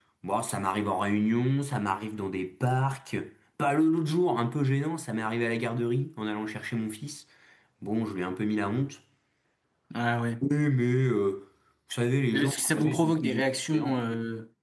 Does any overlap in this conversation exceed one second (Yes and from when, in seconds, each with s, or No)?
Yes, from 12.3 s